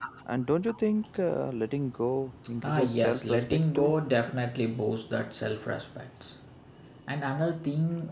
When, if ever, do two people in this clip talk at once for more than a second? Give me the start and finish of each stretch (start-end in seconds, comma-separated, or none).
2.7-3.9